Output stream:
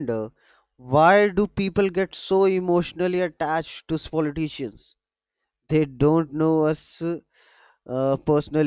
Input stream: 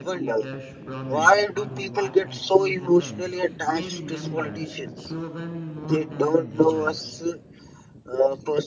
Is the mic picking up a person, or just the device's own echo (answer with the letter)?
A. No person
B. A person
B